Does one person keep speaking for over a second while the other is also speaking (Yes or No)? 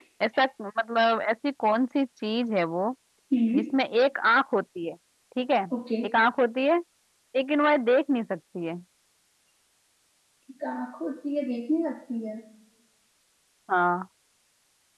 No